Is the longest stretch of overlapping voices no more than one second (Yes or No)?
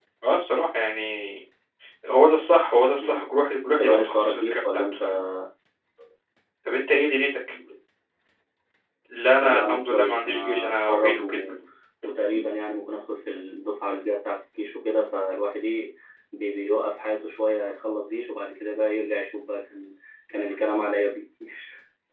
No